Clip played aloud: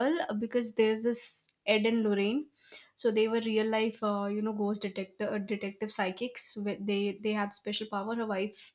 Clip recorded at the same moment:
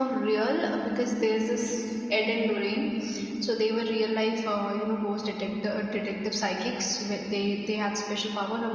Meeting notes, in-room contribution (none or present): none